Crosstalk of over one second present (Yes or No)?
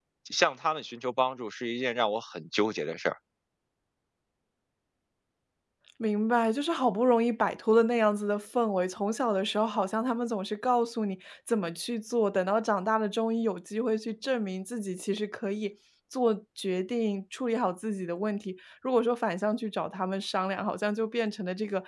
No